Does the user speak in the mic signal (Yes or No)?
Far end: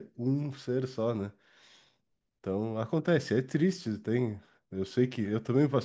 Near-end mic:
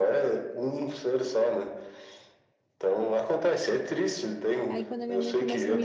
Yes